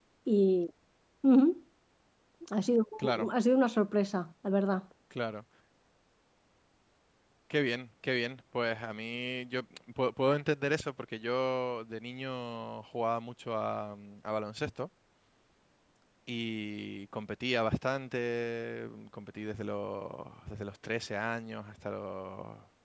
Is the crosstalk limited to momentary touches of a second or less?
Yes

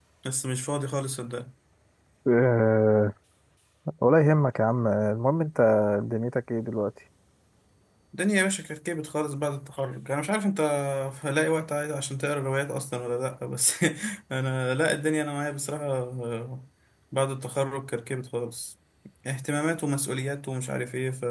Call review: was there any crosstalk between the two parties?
No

